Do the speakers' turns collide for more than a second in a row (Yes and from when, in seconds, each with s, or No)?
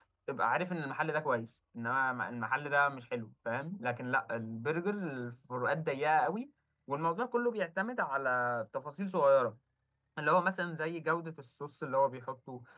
No